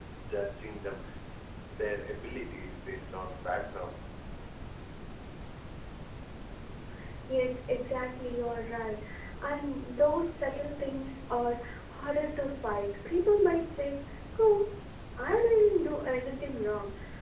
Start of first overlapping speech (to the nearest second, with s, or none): none